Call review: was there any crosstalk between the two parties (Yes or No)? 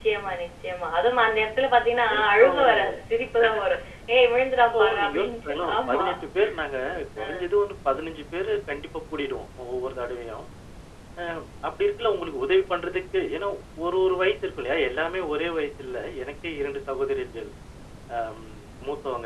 Yes